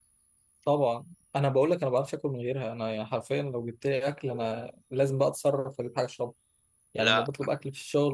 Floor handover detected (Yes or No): No